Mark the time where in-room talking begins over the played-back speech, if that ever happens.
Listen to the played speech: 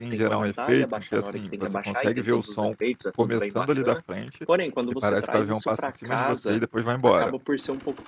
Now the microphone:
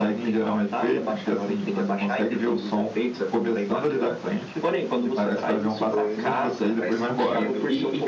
5.8 s

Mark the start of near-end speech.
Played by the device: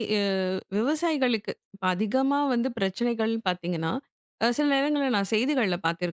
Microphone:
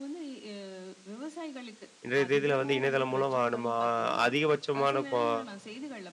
2.0 s

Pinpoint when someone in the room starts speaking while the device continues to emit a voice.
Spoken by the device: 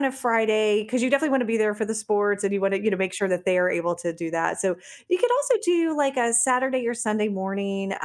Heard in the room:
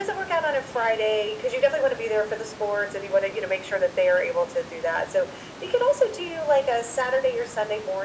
none

